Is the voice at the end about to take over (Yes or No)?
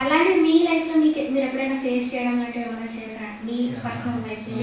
Yes